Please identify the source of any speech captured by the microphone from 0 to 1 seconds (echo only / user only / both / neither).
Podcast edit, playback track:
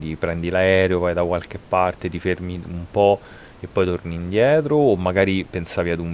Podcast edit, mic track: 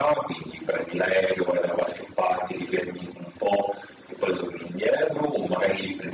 echo only